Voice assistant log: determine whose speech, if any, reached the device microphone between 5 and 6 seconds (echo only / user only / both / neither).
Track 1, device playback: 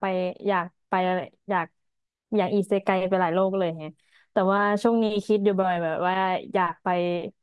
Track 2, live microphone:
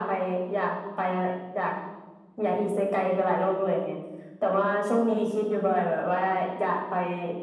echo only